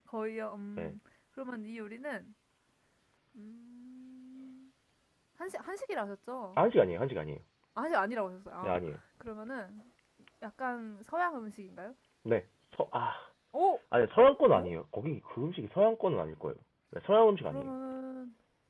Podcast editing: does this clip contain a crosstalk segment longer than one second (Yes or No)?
No